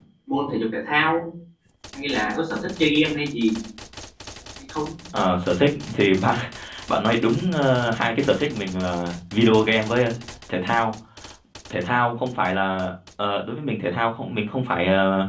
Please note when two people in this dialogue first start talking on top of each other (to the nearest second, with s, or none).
none